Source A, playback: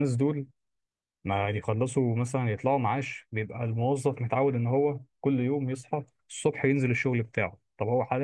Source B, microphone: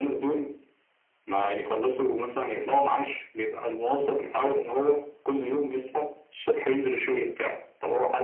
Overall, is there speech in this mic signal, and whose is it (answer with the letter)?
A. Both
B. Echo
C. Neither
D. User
B